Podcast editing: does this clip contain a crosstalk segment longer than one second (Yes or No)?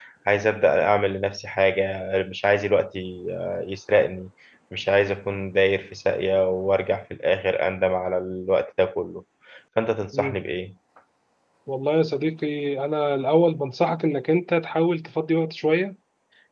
No